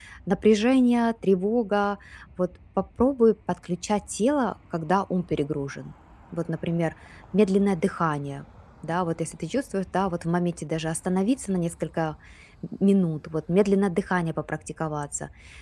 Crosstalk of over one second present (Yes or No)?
No